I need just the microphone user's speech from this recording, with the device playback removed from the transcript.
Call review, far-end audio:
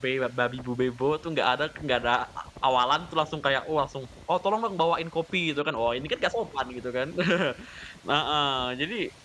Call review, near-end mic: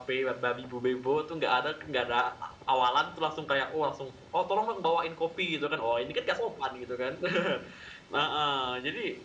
none

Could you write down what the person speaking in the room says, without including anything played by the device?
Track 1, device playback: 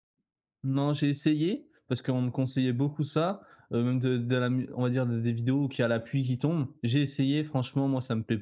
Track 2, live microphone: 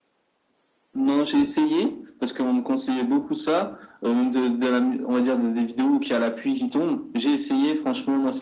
none

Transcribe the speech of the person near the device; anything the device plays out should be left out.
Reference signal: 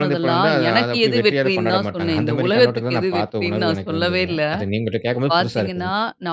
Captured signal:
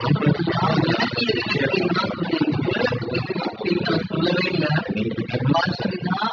none

